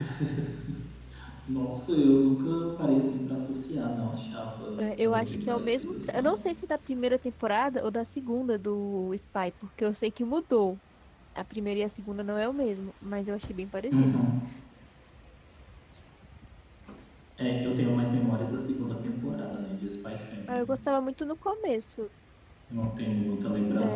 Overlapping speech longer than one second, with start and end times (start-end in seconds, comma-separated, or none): 5.0-6.4